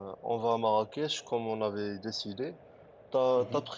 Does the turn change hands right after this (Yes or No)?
No